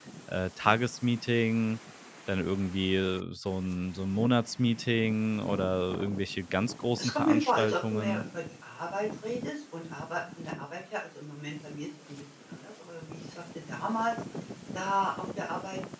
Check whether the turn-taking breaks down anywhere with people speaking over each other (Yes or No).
Yes